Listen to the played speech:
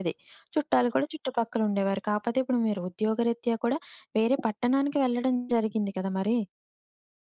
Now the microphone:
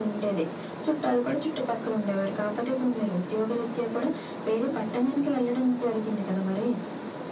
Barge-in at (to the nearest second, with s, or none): none